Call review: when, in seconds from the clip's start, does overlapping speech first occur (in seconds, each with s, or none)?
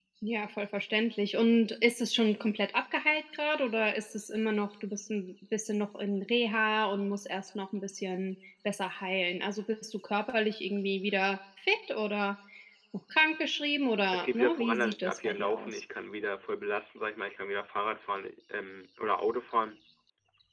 14.1 s